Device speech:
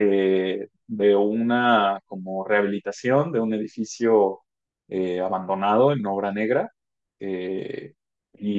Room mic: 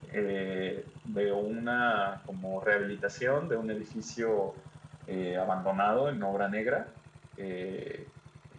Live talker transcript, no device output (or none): none